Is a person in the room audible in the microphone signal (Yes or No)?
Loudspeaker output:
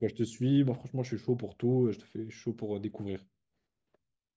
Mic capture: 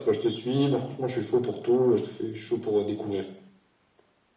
No